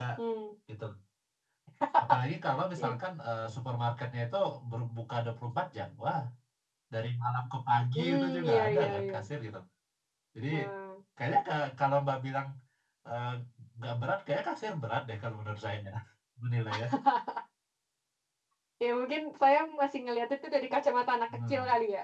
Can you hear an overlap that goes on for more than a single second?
Yes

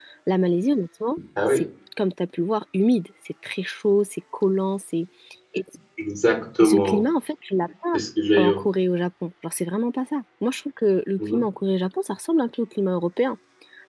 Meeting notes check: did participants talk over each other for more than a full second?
No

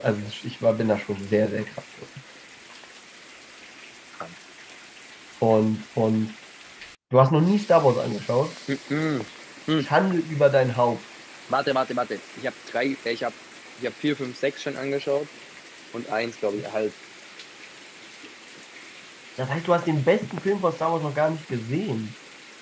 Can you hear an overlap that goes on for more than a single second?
No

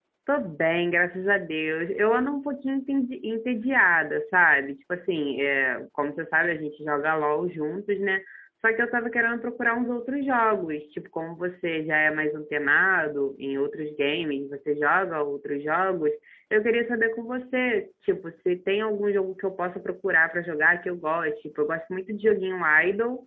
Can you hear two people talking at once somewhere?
No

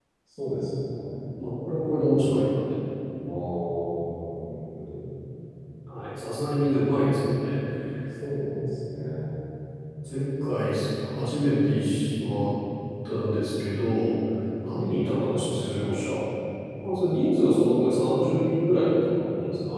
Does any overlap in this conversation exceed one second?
No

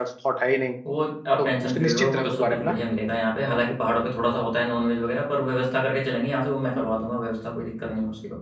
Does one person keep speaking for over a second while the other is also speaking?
Yes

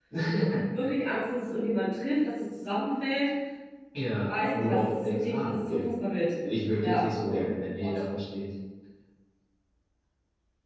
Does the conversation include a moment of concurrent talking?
Yes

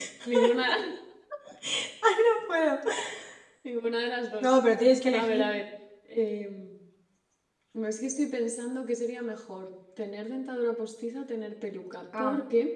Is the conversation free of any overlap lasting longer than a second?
Yes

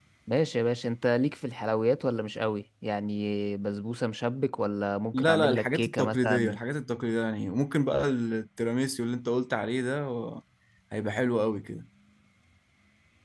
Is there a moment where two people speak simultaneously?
Yes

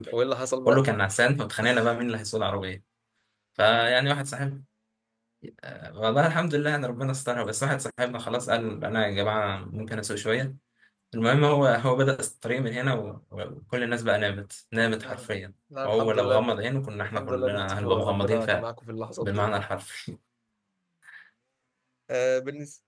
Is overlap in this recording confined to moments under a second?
No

